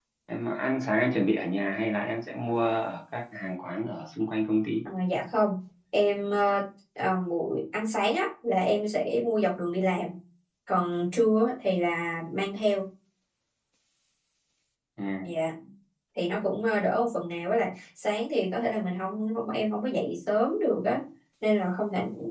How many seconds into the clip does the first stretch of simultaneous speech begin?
none

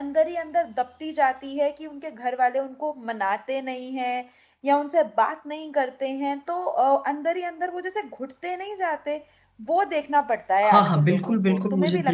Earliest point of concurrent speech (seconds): 11 s

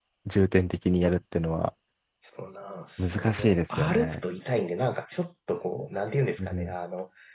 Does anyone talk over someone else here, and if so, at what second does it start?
3 s

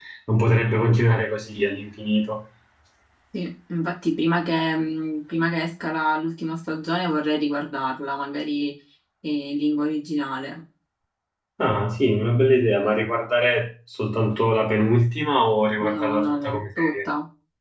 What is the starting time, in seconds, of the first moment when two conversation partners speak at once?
16 s

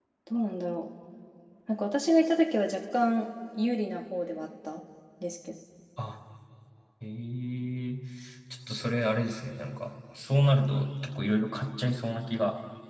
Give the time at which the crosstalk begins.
none

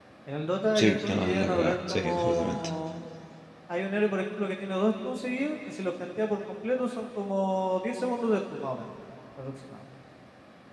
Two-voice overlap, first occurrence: 1 s

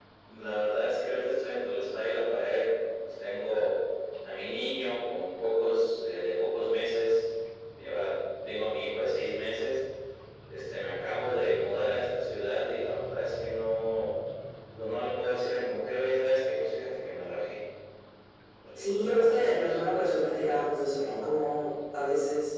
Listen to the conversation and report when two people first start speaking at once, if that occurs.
19 s

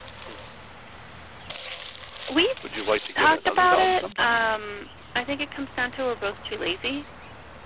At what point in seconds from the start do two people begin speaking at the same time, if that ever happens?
3 s

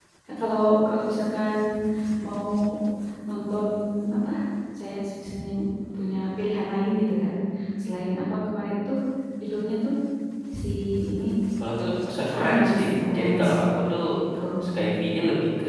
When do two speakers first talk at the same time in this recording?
12 s

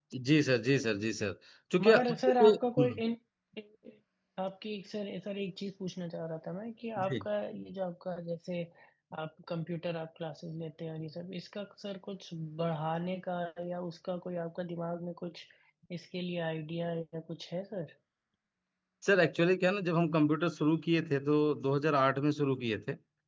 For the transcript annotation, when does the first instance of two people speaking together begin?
2 s

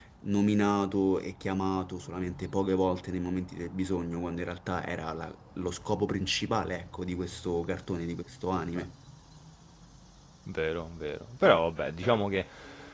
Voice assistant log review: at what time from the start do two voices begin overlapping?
none

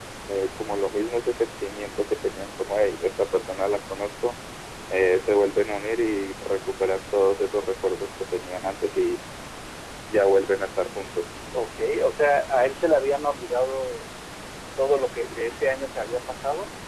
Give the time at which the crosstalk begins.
none

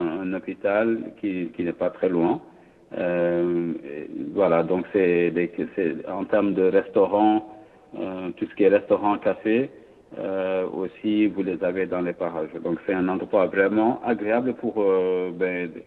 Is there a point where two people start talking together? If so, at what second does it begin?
none

